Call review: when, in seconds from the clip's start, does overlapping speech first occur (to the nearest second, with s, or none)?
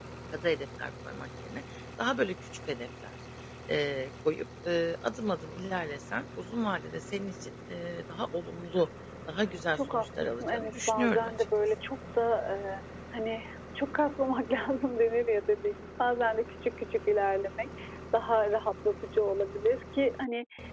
10 s